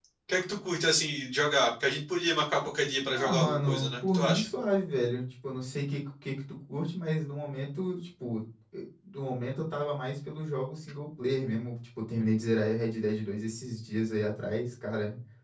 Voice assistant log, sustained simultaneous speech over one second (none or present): present